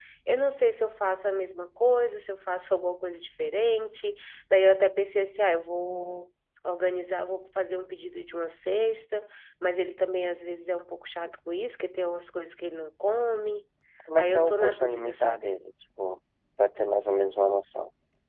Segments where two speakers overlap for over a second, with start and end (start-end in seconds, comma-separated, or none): 14.2-15.5